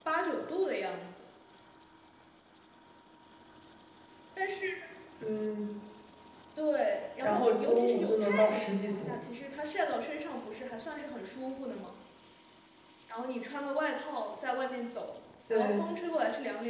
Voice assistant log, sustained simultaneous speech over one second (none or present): present